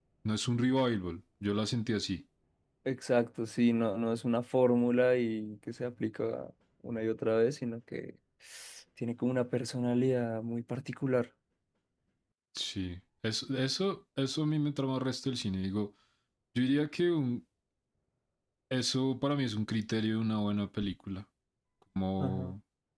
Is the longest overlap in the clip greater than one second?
No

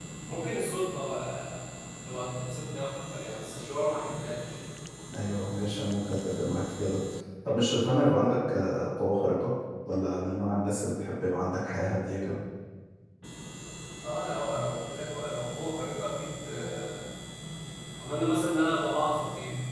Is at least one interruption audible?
No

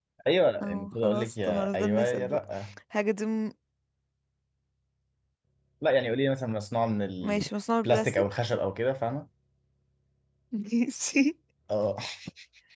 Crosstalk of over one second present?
Yes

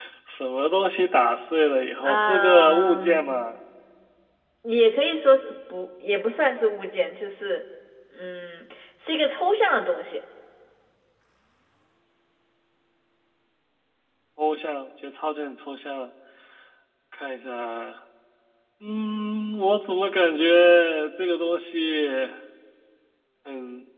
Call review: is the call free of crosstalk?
No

